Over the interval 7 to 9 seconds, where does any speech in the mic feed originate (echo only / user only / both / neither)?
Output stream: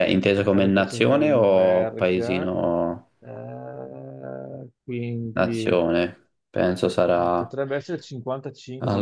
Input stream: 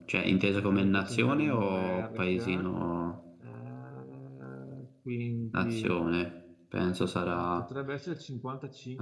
echo only